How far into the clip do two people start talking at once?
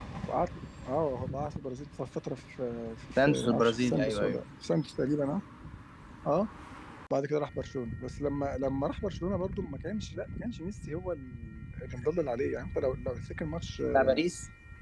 3.2 s

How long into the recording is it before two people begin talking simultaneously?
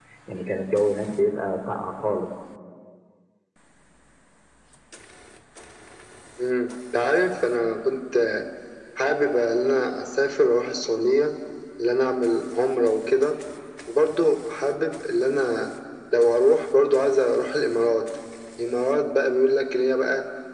none

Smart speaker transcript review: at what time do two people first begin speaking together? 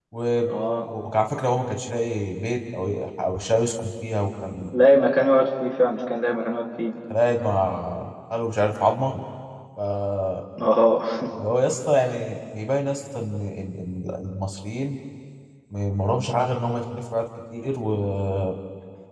none

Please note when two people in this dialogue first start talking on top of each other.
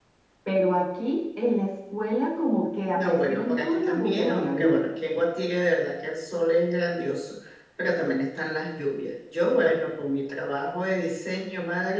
2.9 s

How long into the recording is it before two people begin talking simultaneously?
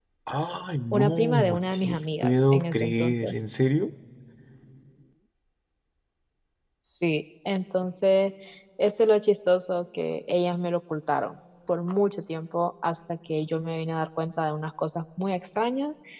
0.9 s

